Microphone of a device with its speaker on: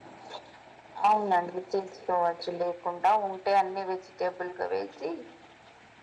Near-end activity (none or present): none